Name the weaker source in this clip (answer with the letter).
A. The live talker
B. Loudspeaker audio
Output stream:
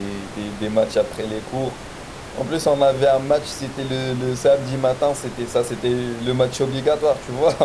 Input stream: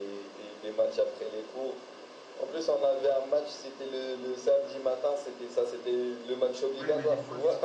A